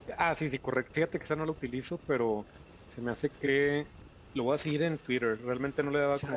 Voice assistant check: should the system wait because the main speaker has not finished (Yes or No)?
Yes